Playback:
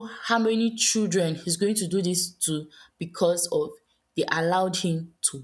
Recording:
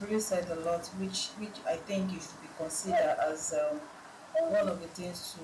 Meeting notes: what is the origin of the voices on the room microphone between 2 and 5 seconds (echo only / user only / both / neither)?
user only